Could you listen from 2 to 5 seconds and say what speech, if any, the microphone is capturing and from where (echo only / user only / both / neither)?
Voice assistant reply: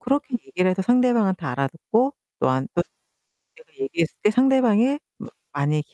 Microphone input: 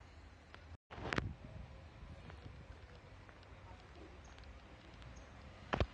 neither